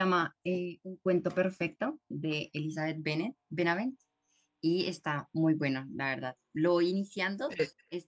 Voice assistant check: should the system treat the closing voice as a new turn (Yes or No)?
No